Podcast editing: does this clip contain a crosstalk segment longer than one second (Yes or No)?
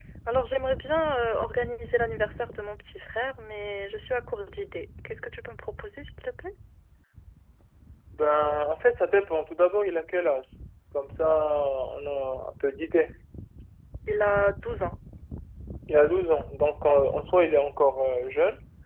No